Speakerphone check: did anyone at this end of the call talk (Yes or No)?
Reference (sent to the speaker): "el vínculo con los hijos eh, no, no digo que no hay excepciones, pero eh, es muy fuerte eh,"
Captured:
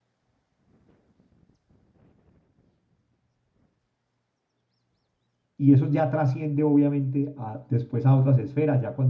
Yes